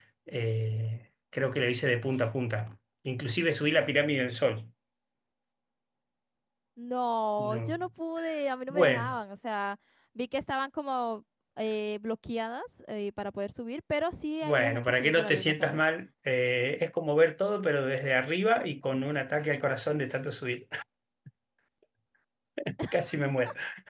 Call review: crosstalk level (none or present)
present